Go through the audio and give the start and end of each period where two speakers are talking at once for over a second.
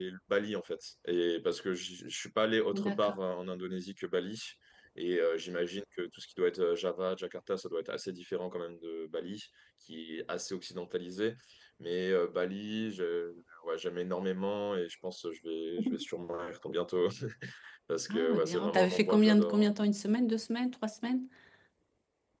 18.1-19.7

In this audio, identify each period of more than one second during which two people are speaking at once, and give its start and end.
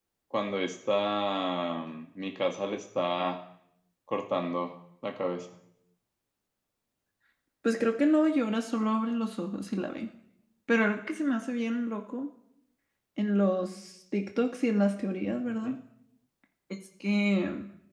none

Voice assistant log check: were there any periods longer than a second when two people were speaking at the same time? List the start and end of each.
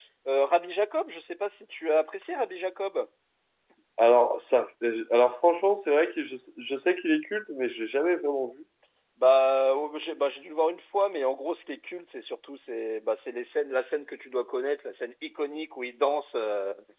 none

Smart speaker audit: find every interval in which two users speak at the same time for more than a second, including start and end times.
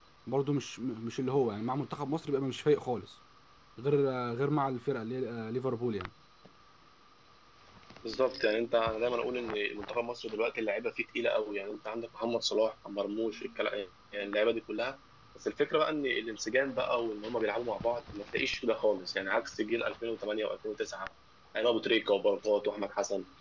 none

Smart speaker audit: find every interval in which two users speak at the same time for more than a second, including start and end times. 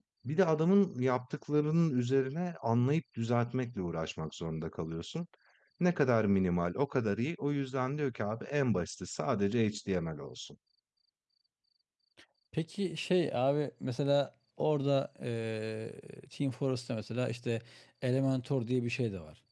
none

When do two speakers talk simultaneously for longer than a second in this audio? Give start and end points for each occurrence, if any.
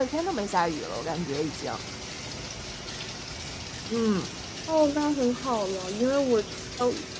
none

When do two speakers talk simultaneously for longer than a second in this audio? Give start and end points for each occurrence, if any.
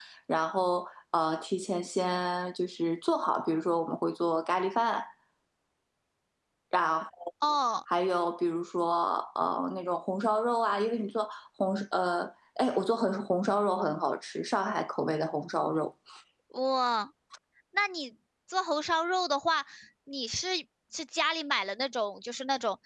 none

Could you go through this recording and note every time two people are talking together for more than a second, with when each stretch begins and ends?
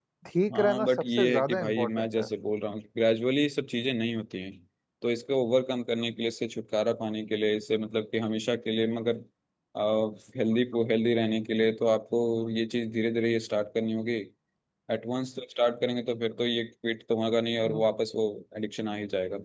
0.5-2.3

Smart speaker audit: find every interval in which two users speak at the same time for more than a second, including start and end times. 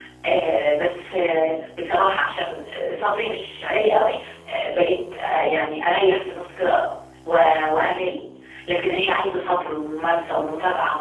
none

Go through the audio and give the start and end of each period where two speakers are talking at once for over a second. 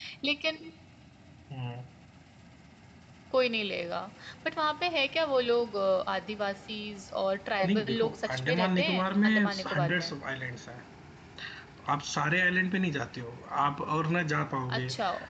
7.7-10.1

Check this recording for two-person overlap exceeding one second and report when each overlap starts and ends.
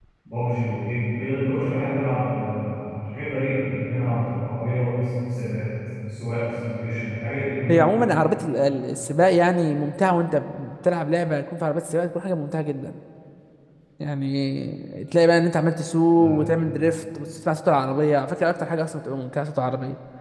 none

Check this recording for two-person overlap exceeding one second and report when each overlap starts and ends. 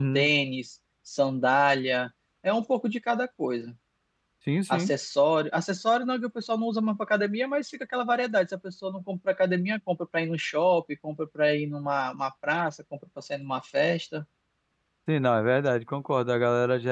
none

